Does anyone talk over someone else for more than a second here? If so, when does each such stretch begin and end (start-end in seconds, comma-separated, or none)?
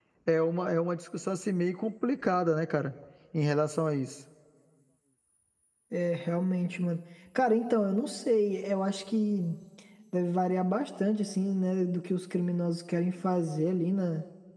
none